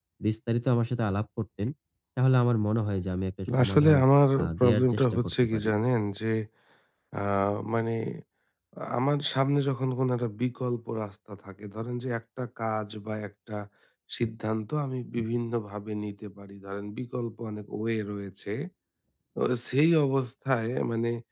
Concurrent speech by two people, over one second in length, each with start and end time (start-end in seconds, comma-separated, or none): 4.4-5.7